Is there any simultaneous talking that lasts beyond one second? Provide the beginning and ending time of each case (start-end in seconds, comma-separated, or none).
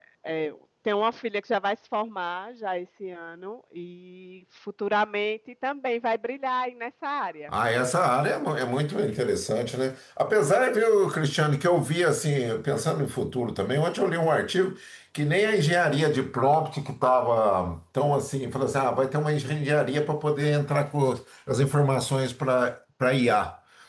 none